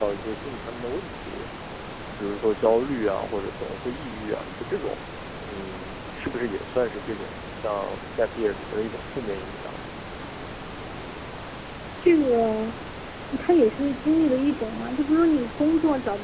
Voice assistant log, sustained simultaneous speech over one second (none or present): none